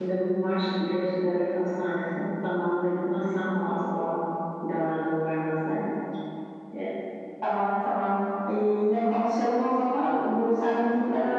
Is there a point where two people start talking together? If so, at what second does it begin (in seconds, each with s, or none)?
none